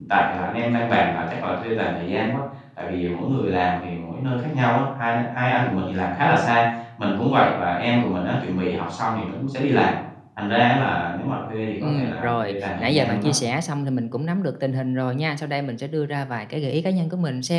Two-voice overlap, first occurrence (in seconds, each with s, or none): 11.8 s